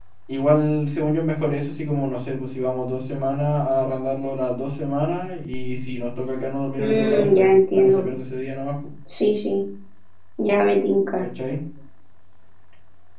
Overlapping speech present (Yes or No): Yes